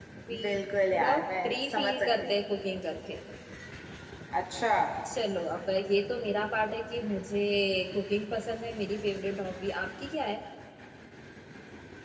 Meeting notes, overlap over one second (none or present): present